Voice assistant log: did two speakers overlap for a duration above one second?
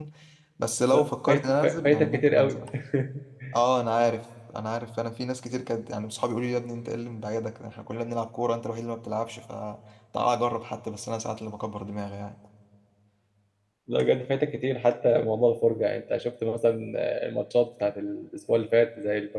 Yes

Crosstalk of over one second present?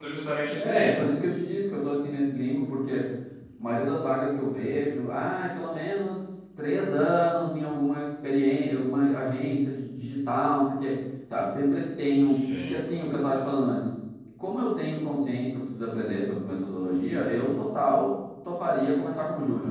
No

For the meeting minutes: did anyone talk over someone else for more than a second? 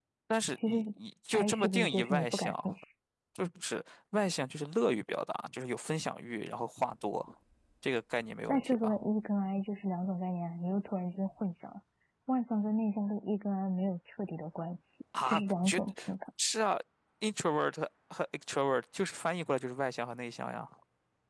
Yes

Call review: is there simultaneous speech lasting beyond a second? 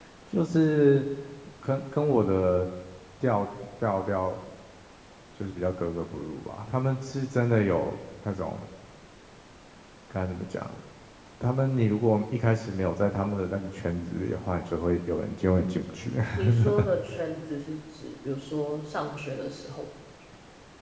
No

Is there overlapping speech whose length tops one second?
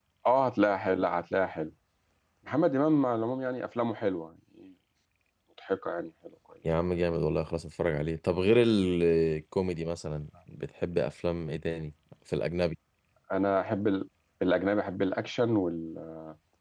No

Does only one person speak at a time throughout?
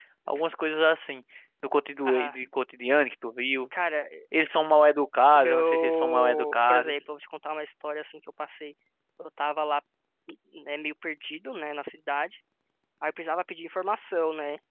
No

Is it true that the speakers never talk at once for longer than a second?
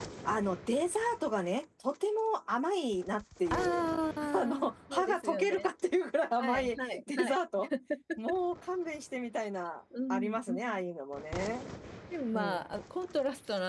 No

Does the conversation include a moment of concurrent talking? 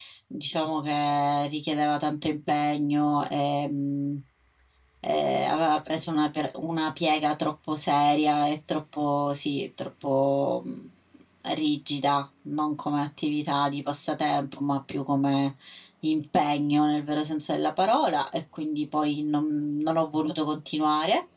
No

